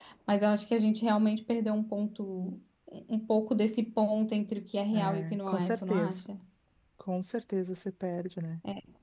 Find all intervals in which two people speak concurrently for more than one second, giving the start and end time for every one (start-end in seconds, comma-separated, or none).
4.9-6.2